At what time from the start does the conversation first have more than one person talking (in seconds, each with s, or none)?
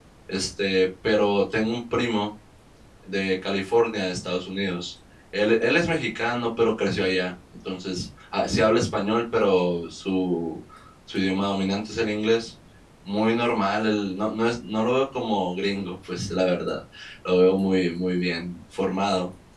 none